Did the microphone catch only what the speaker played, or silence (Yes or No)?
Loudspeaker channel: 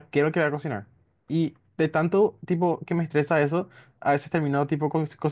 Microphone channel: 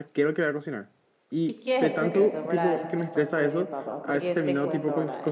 No